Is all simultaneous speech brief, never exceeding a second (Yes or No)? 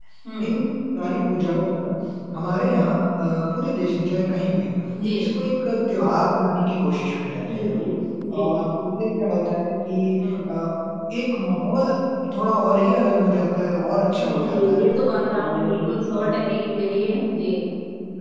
No